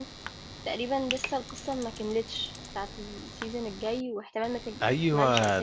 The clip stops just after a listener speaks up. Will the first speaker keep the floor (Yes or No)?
No